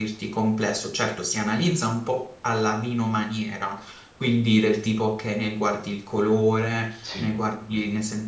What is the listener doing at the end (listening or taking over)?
listening